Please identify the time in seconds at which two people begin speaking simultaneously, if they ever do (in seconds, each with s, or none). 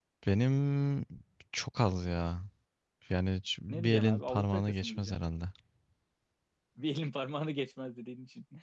3.7 s